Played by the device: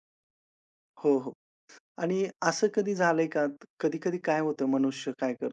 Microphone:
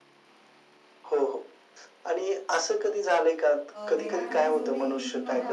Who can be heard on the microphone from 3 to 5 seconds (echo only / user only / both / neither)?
both